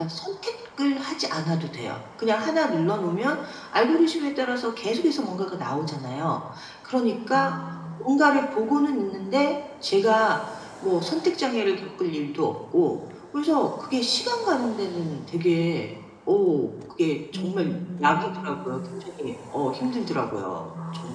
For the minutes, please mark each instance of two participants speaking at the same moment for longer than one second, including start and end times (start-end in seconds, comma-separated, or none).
17.3-19.0